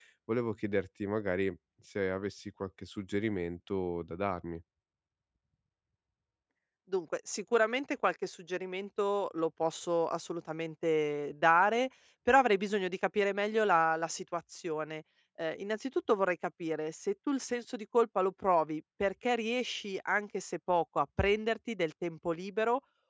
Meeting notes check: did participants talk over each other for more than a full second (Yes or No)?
No